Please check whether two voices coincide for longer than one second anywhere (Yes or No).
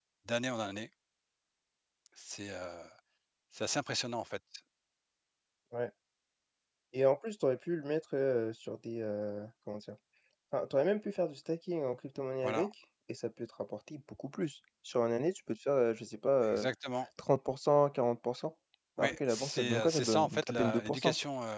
Yes